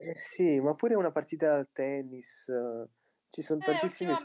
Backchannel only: No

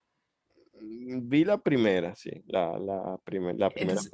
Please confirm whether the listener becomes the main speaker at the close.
Yes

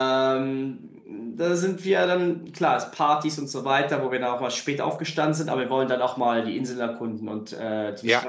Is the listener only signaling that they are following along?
No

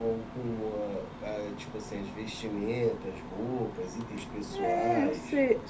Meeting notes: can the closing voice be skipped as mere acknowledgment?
No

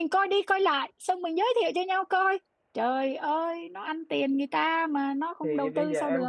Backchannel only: No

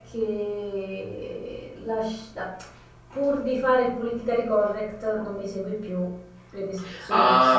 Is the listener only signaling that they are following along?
No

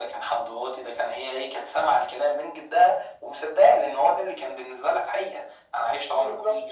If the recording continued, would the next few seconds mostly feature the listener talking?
No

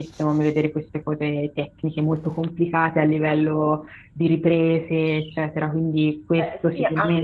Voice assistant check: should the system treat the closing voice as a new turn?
Yes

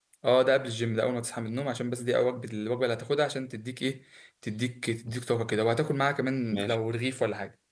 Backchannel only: Yes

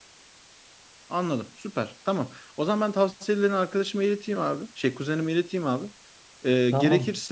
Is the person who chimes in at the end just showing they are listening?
Yes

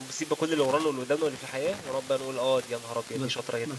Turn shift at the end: Yes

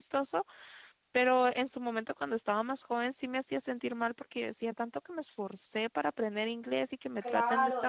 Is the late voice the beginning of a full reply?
Yes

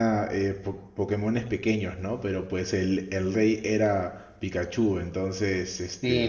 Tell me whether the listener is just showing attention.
No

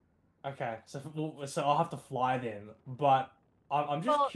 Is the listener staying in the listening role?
No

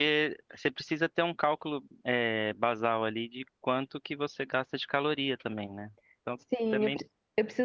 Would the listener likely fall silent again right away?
No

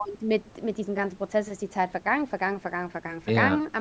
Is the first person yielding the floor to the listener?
No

